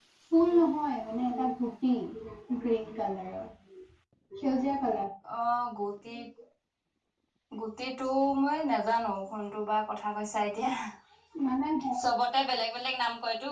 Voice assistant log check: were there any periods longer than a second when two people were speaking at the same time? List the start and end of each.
none

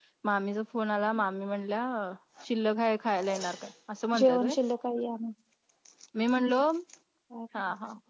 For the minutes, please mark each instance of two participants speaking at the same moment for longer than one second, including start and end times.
none

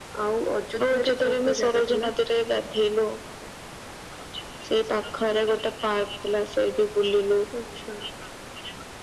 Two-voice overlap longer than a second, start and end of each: 0.8-2.1

